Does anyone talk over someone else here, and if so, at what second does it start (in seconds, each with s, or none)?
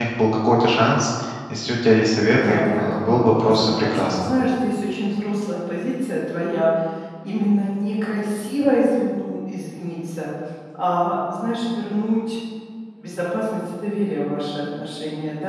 2.4 s